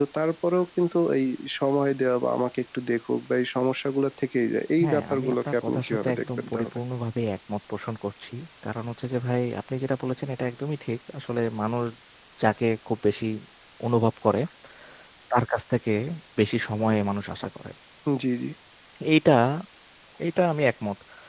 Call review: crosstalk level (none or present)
present